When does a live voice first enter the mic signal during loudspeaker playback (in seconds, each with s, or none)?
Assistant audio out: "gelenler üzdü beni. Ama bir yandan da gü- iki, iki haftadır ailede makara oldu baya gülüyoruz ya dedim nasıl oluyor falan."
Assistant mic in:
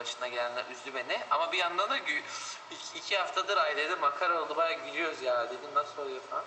none